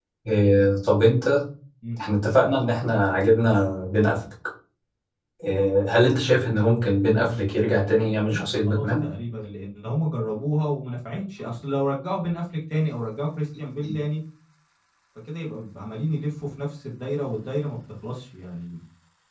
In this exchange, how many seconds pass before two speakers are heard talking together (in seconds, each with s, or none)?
7.3 s